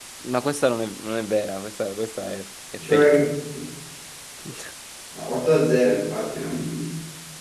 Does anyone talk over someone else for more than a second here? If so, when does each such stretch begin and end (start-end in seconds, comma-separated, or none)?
none